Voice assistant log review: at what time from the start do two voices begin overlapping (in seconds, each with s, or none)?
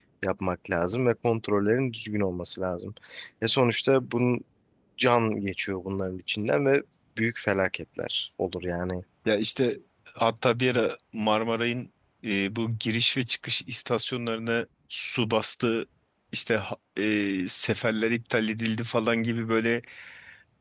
none